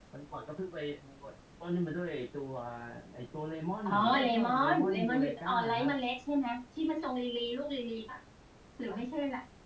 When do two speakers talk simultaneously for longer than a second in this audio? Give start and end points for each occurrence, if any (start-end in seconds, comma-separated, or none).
3.8-5.9